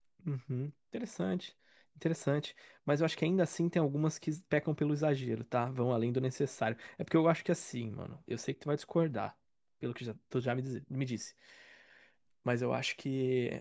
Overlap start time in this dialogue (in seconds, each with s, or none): none